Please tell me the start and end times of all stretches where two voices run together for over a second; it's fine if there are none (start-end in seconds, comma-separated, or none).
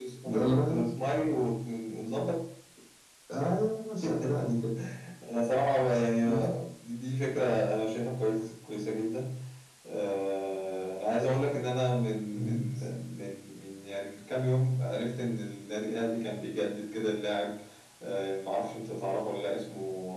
none